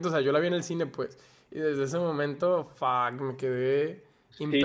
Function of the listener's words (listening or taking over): taking over